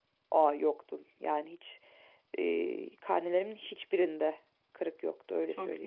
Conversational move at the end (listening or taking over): taking over